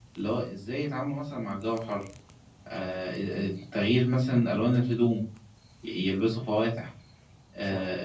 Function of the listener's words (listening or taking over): listening